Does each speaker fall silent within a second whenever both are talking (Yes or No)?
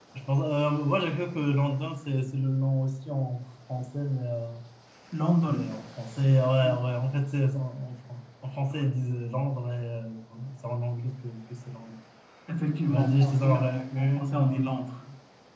No